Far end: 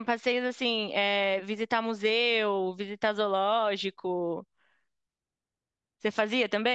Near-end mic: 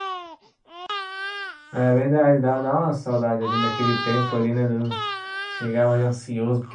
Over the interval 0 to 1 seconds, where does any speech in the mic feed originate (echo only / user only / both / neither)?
neither